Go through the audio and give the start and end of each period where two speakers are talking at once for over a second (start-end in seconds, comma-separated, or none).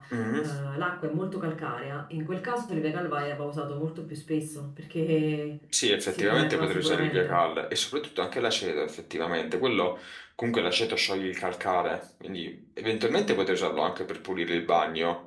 6.1-7.4